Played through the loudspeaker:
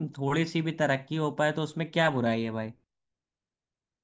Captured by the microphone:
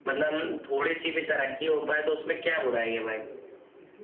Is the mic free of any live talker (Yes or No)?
No